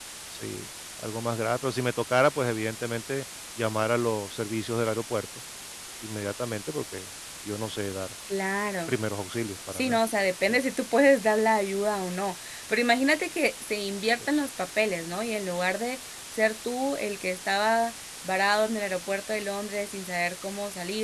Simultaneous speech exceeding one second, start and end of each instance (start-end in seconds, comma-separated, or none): none